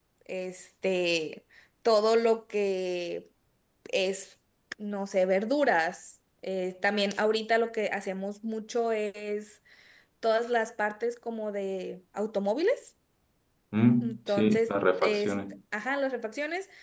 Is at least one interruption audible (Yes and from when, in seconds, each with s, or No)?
Yes, from 14.0 s